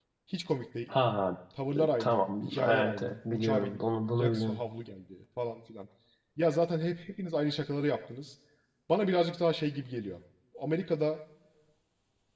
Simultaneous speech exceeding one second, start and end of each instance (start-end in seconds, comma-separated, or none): 2.0-4.6